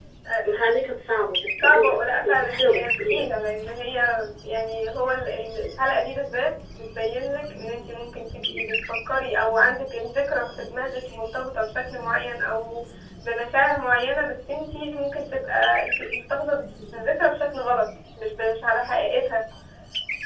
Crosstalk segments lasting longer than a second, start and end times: 1.6-3.2

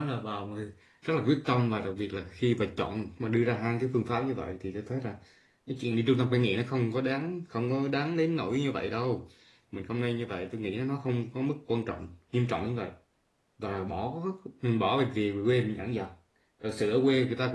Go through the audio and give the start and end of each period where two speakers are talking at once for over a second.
none

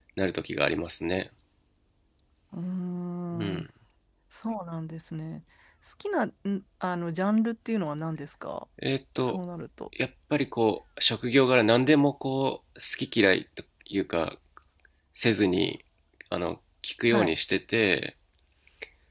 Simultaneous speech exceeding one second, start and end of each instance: none

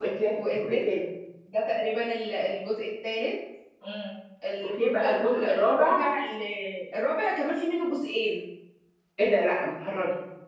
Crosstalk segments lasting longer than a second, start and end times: 4.8-6.0

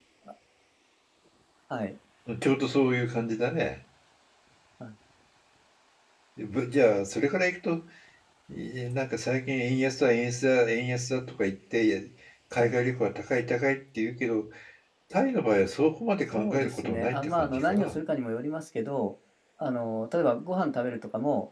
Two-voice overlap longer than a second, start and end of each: 16.3-17.9

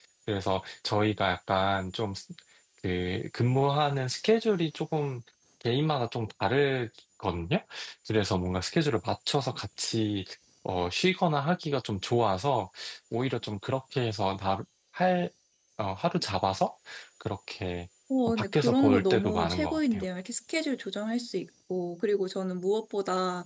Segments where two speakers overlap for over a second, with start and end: 18.3-20.1

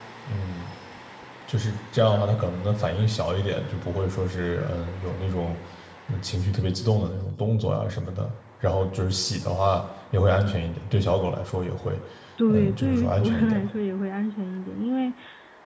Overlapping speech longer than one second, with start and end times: 12.5-13.7

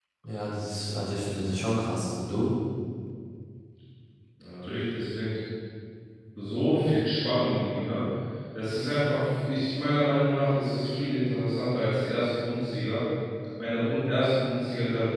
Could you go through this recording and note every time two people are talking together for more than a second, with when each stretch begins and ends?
none

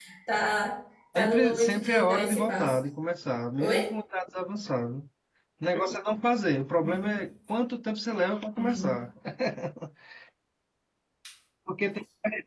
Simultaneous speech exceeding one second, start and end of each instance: 1.1-2.8

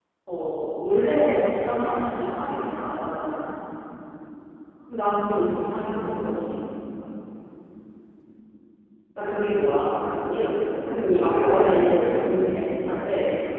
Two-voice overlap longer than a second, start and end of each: 10.9-12.2

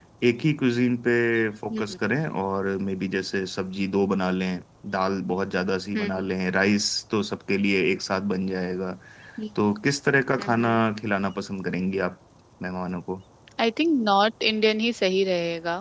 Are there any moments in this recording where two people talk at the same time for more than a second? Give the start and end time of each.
none

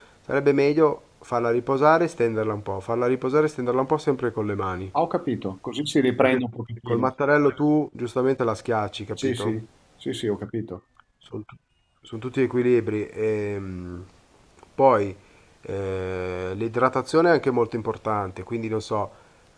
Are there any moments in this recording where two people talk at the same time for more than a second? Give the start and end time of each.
none

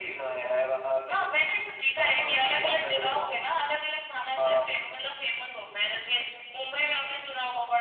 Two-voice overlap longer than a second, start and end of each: 2.0-3.2

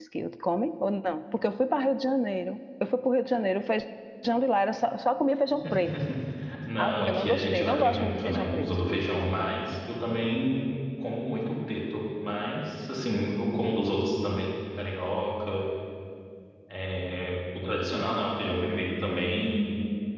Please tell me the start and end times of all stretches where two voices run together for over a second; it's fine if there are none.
6.8-8.7

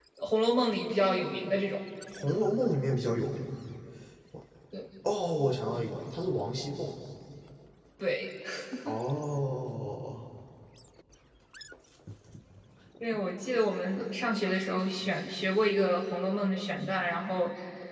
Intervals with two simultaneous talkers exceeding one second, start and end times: none

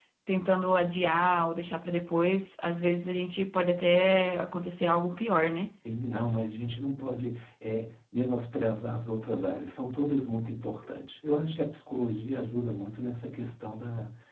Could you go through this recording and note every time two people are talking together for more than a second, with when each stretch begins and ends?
none

